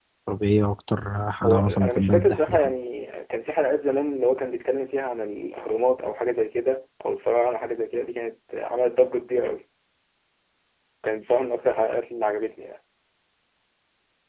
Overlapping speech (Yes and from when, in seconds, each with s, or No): Yes, from 1.4 s